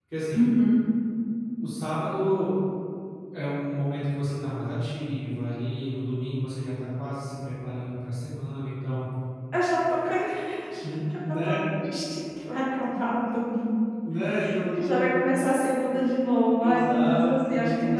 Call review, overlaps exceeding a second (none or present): present